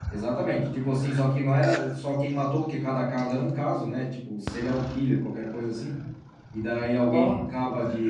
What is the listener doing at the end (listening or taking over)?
listening